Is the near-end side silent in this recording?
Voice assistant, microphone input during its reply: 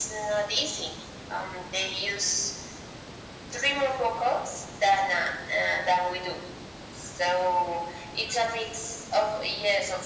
Yes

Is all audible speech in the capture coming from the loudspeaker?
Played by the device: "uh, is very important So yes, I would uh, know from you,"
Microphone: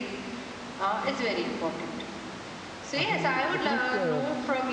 No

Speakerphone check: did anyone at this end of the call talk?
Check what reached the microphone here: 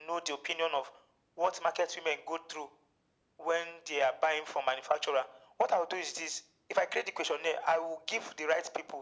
No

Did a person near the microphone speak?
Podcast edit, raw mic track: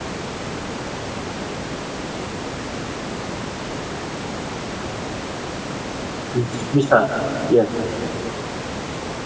Yes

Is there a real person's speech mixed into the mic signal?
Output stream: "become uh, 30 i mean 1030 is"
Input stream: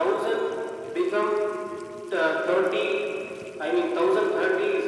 No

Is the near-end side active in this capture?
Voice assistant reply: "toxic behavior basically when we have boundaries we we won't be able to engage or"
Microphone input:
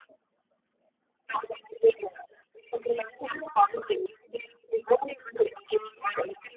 No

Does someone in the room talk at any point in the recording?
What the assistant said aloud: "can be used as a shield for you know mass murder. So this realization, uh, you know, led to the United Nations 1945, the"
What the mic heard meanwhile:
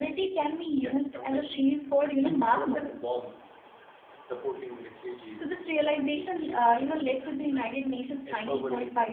Yes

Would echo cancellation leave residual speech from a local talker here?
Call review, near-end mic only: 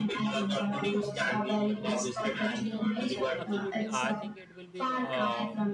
Yes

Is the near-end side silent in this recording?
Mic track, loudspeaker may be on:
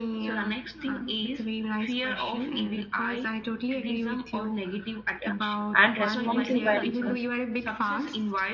No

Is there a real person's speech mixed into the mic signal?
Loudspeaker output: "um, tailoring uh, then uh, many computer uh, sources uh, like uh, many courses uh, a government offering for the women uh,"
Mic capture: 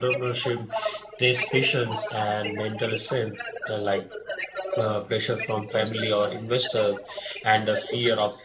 Yes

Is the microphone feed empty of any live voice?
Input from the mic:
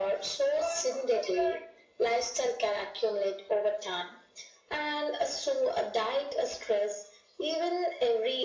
Yes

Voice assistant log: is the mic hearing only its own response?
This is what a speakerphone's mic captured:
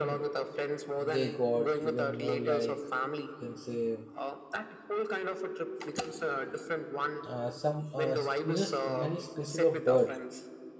No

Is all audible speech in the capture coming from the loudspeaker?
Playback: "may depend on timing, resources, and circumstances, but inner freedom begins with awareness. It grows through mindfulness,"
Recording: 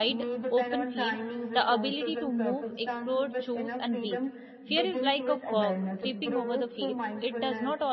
No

